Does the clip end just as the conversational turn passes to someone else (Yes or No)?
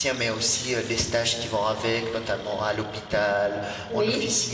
No